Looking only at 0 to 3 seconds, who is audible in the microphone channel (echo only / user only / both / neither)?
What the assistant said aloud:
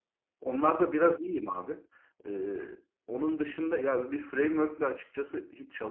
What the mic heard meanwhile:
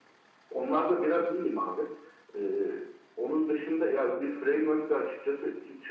echo only